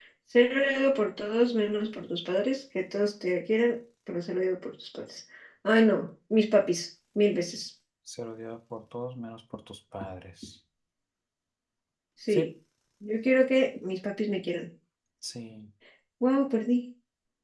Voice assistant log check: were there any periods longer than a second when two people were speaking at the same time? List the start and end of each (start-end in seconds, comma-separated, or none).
none